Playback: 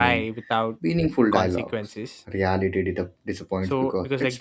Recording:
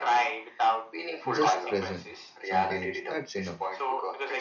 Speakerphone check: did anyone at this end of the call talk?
Yes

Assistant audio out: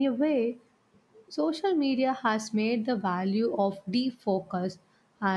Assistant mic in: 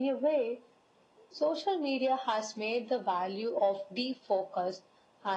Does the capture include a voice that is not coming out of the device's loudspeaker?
No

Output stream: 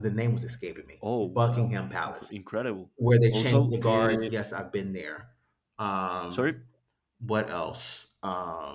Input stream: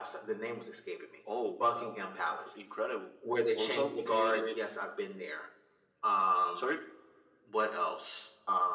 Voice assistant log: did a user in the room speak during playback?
No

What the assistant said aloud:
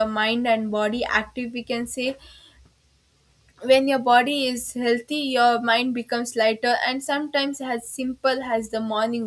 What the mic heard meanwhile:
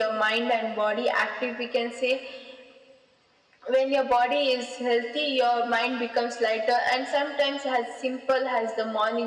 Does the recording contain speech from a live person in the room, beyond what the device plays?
No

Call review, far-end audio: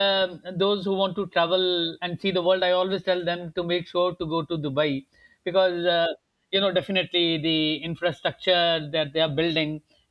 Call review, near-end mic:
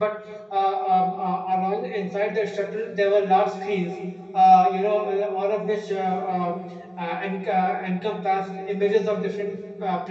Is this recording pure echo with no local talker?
No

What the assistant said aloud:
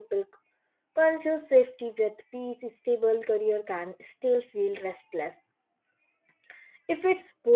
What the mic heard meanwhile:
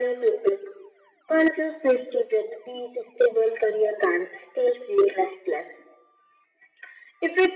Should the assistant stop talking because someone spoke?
No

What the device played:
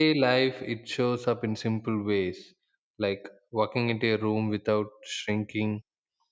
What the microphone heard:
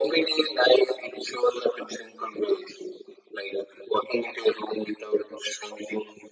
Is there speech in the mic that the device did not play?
No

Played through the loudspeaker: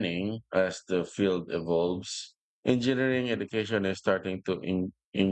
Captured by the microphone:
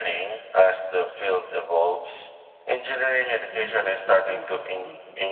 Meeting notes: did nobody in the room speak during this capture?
No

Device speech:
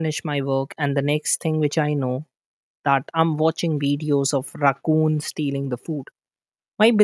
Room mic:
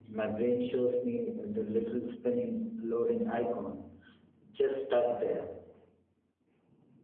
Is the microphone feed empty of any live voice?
No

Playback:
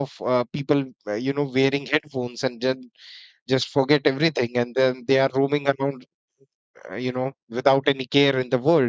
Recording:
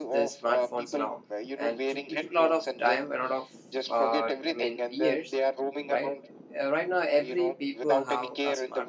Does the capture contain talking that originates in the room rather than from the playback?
Yes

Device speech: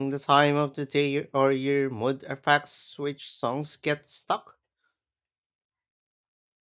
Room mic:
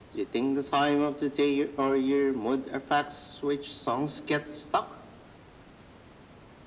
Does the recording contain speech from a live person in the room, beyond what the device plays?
No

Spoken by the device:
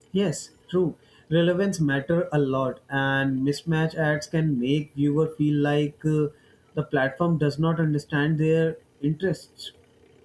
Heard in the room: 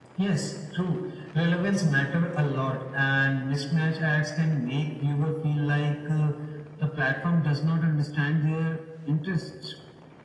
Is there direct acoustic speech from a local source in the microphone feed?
No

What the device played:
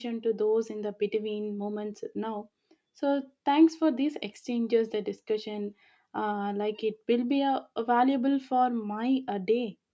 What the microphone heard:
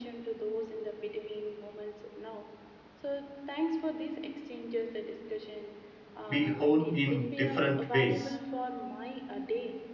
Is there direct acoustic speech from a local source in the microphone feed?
Yes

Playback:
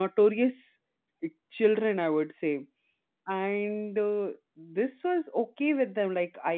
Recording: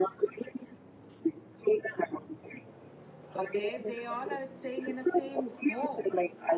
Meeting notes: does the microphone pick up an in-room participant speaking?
Yes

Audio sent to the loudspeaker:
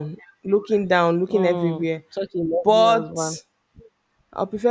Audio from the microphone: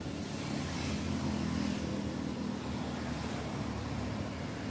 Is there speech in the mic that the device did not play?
No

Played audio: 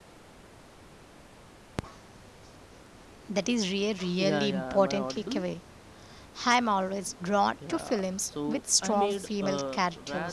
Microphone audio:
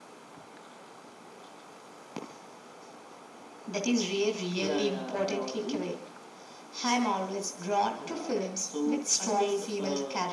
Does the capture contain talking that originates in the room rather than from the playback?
No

